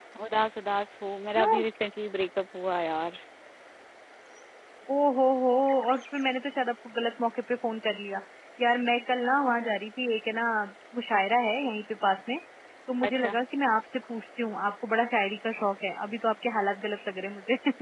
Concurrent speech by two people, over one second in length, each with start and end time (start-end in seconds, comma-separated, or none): none